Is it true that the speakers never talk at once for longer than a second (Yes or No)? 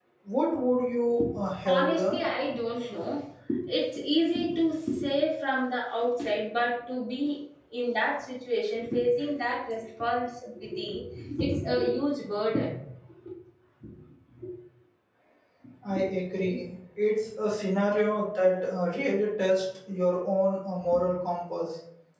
Yes